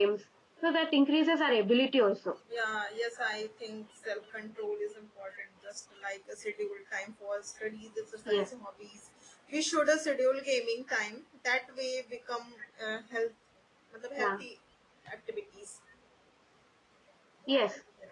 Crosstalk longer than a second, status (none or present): none